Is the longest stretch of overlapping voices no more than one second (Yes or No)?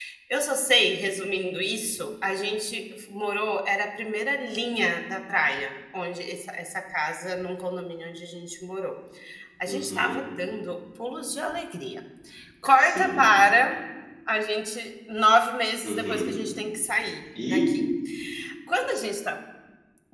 Yes